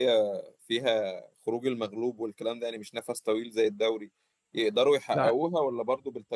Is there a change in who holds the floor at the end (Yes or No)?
No